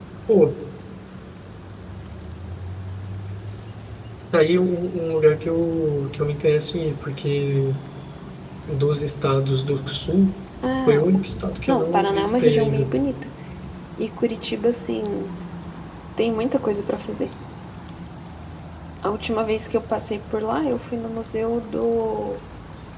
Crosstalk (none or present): present